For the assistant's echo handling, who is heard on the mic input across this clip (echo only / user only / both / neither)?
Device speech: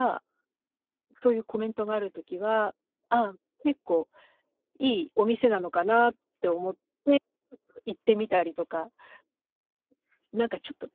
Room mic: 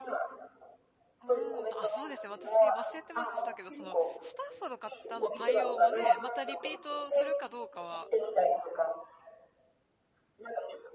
both